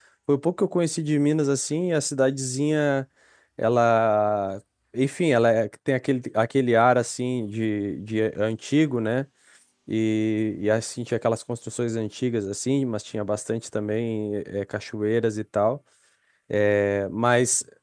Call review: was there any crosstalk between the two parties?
No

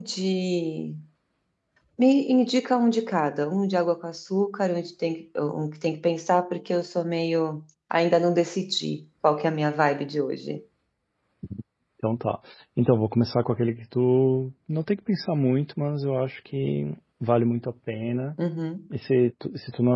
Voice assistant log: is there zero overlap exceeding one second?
Yes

